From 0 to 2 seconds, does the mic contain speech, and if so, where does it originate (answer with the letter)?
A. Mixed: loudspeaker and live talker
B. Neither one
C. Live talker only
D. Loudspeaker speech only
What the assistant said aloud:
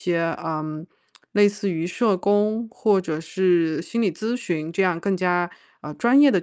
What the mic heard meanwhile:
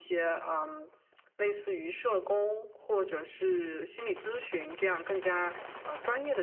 D